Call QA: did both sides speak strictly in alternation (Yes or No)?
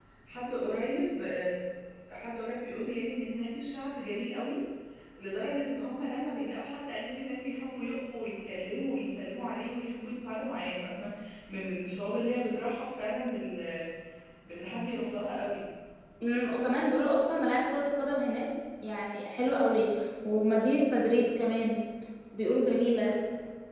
Yes